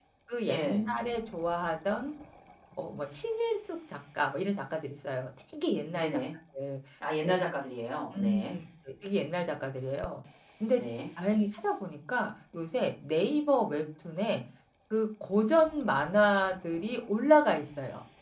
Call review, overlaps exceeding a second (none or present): none